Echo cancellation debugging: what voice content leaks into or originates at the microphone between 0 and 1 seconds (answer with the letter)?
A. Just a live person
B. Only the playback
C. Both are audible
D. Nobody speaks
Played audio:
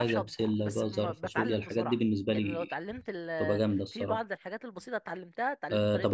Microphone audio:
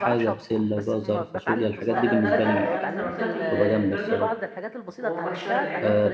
B